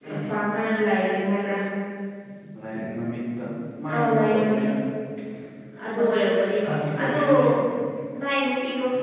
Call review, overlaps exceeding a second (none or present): present